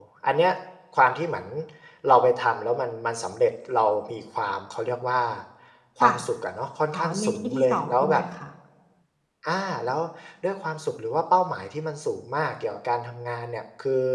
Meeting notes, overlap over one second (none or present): present